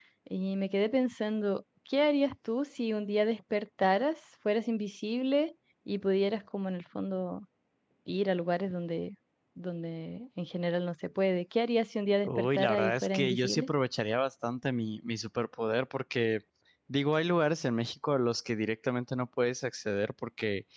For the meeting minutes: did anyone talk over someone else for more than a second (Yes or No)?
Yes